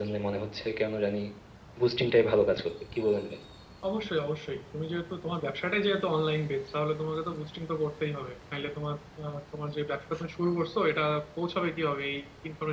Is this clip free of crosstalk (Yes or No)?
Yes